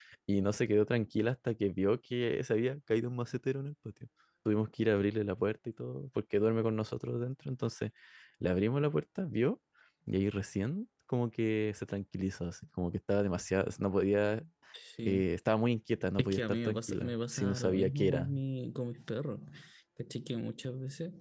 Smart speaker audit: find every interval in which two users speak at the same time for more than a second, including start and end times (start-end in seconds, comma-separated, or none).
16.2-18.3